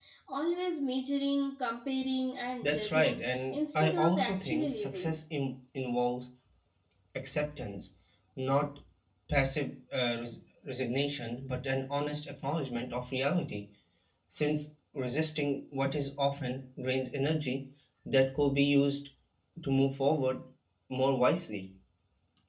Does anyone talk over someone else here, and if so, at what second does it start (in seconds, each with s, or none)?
2.6 s